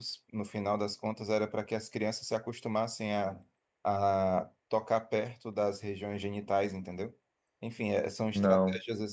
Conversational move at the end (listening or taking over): listening